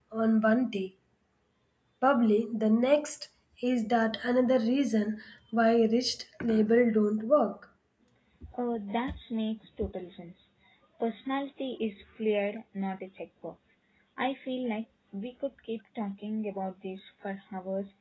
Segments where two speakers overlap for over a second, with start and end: none

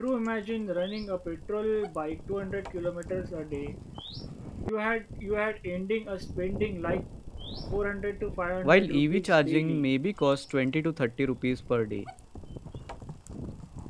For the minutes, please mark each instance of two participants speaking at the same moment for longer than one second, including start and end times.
8.6-9.8

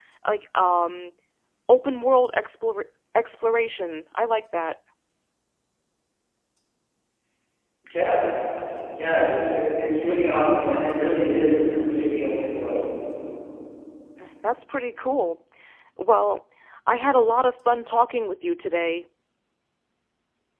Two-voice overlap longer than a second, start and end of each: none

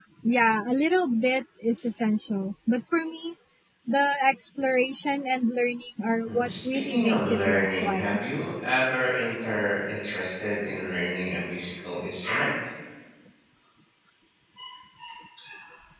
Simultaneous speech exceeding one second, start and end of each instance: 6.3-8.2

